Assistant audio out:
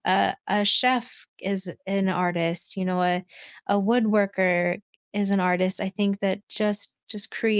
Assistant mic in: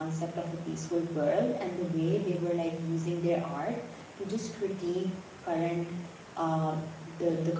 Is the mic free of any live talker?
No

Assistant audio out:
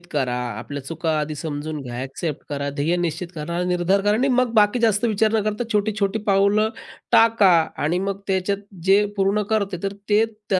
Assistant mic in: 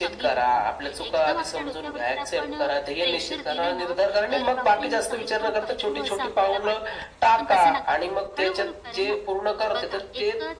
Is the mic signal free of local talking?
No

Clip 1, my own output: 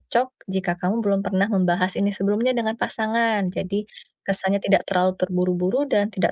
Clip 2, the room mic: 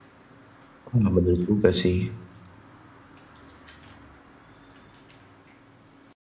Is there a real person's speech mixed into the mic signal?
Yes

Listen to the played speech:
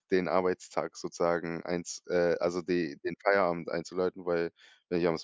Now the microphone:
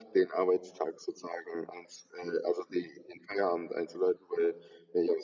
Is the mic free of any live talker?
Yes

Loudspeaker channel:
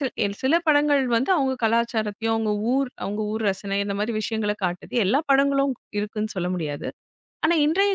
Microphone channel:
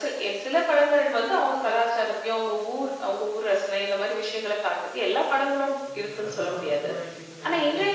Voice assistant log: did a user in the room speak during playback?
Yes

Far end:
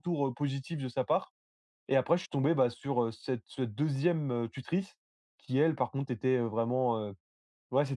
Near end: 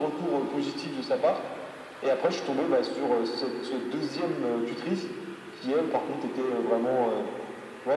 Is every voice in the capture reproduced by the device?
Yes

